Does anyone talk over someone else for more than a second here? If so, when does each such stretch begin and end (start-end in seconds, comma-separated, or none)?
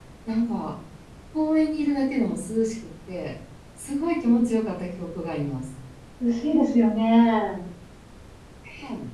none